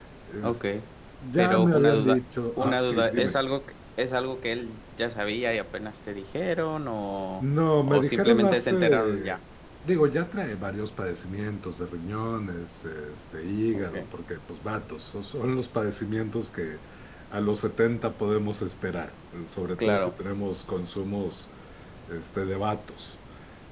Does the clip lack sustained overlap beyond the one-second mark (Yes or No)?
No